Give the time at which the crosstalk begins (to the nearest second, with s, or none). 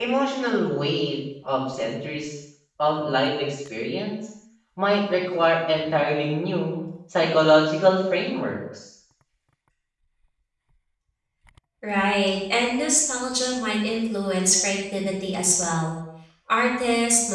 none